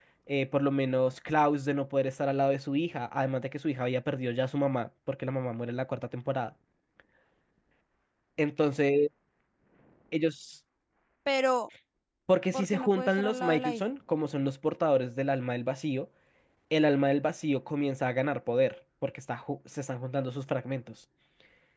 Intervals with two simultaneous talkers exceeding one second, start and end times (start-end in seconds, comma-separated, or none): 12.5-13.9